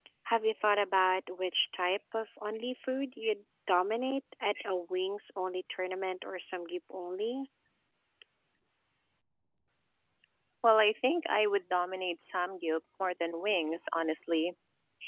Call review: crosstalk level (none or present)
none